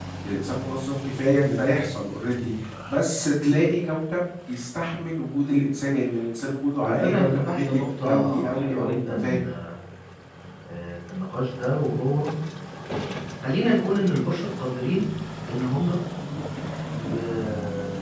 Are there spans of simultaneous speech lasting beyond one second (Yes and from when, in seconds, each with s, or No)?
Yes, from 6.8 s